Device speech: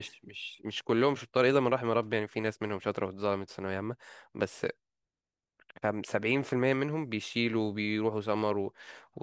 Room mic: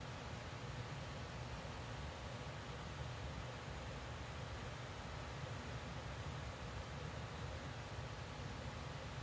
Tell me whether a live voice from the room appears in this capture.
No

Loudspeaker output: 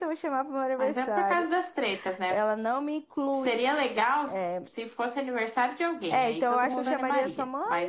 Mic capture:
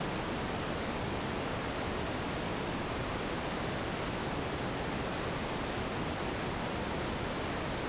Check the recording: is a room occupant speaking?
No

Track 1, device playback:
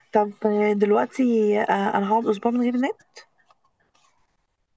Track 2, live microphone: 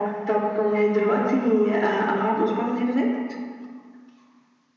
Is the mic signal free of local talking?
Yes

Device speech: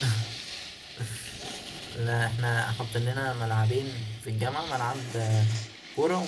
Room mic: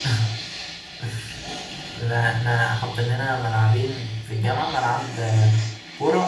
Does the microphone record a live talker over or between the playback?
No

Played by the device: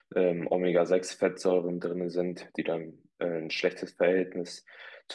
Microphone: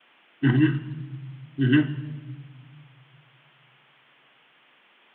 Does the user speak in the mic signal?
Yes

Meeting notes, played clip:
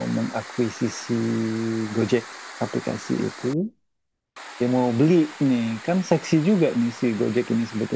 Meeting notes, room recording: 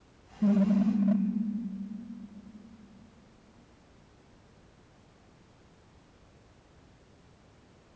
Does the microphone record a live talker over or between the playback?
Yes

